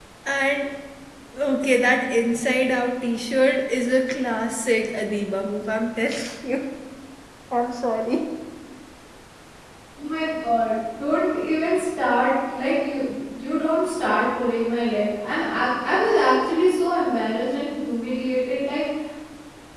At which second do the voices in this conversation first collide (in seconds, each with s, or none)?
none